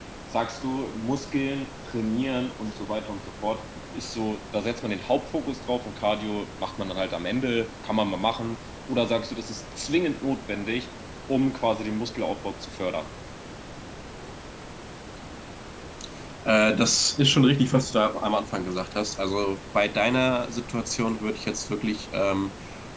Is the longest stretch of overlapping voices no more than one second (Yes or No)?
Yes